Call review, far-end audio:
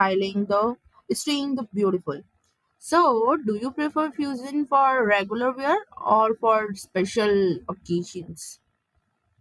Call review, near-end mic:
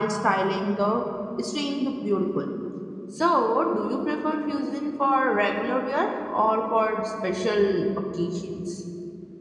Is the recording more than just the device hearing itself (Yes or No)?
No